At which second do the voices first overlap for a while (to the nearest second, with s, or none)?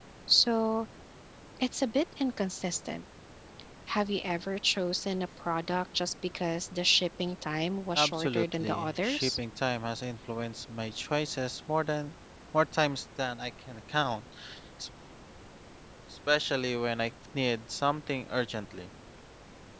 8 s